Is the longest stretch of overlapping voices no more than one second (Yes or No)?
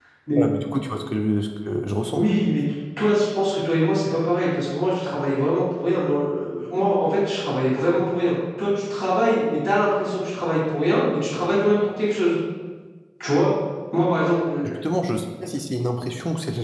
Yes